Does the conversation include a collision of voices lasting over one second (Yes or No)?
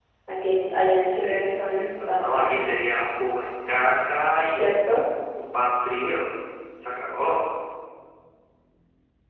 Yes